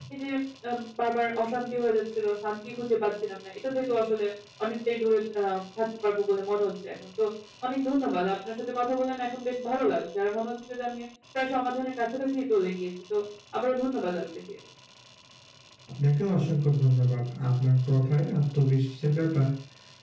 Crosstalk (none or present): none